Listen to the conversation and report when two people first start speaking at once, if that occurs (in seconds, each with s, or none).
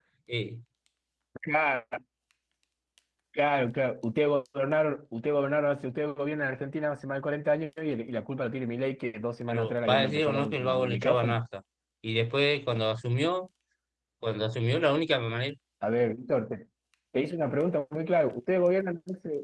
9.5 s